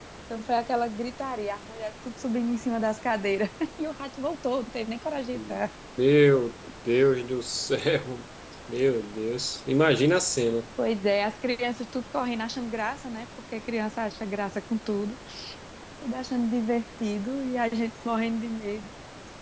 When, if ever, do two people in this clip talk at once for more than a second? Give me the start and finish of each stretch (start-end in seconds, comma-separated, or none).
none